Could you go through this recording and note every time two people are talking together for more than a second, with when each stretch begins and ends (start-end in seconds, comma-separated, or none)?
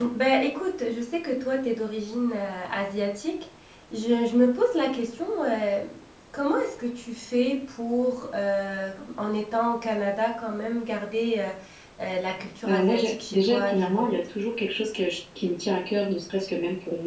12.7-14.1